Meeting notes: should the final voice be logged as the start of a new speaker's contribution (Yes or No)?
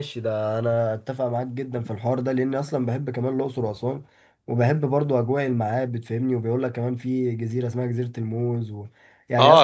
Yes